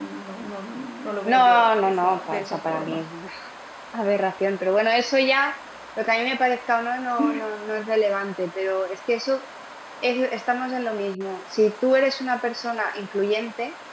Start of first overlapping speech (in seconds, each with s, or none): 1.2 s